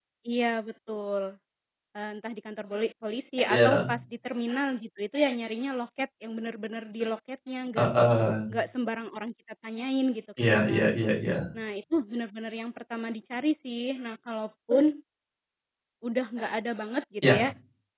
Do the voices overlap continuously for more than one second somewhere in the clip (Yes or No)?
No